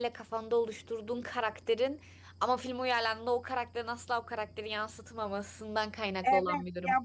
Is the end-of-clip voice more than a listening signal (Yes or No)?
Yes